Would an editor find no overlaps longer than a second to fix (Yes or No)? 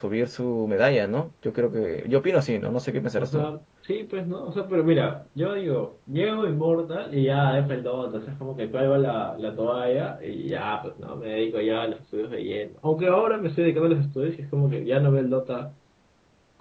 Yes